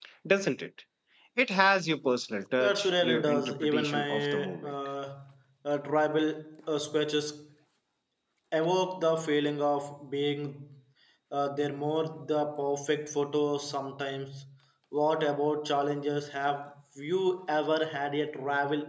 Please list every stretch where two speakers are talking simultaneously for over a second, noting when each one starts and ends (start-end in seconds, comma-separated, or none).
2.6-4.7